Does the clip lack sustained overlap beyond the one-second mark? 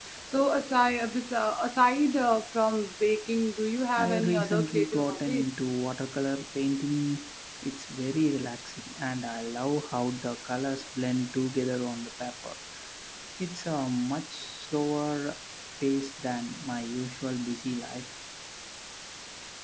No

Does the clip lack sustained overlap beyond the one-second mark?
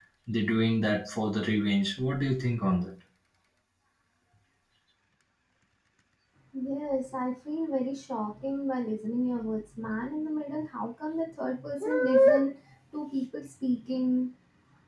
Yes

